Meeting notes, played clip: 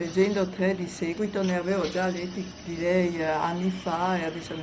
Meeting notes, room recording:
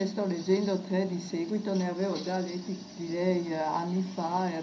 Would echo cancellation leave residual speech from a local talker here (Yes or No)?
No